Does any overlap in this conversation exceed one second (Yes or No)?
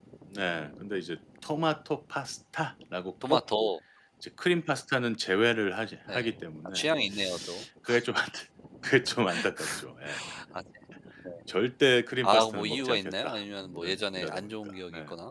Yes